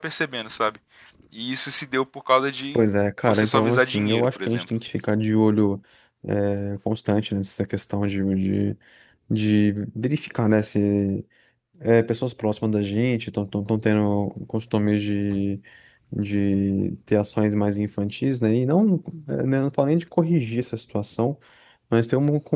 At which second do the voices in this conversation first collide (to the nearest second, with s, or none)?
3 s